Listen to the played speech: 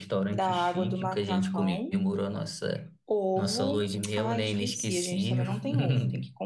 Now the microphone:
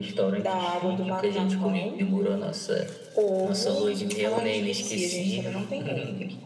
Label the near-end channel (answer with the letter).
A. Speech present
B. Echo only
B